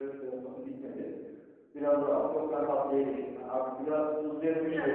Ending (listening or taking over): taking over